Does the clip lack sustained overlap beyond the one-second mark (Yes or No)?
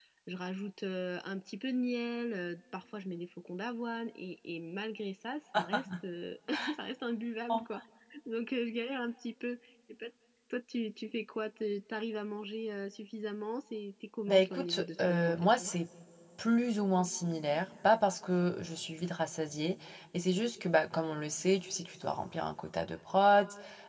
No